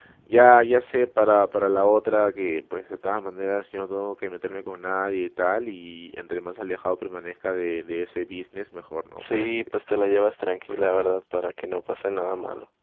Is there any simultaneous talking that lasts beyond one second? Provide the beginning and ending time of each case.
none

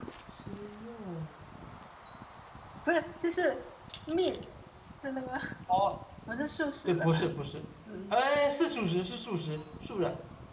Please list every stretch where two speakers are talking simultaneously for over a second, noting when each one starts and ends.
none

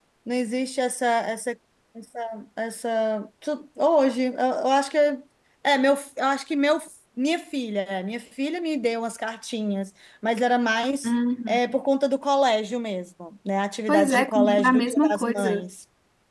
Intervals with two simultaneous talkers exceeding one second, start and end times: 13.9-15.7

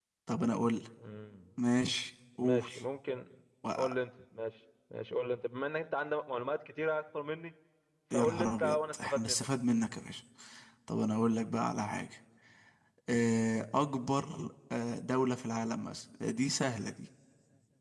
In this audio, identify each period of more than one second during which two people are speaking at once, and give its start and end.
8.1-9.5

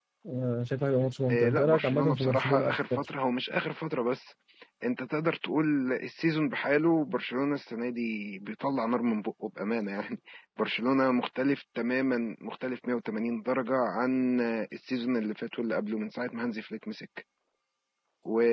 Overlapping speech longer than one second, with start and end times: 1.3-3.1

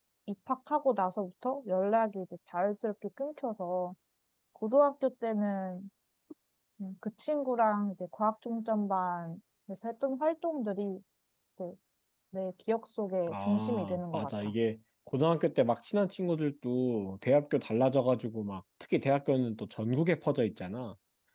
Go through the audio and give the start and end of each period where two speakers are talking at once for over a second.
13.3-14.5

